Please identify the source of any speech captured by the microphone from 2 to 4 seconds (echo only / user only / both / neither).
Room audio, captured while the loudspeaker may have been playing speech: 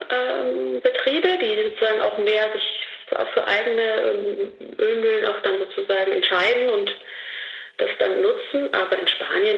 echo only